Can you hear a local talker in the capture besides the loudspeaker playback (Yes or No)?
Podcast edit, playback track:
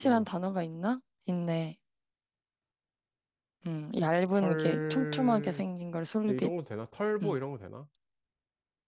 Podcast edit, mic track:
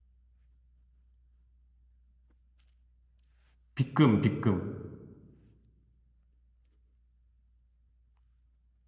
Yes